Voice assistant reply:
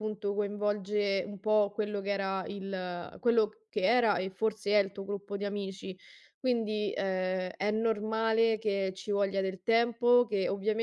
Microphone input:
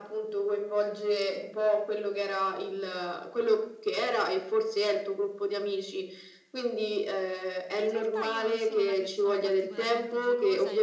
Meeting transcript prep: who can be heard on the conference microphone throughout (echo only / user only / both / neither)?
both